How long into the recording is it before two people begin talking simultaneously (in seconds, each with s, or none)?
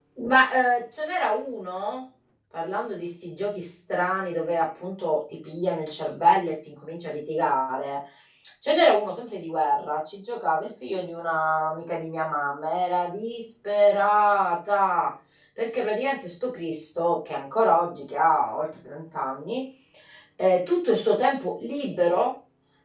none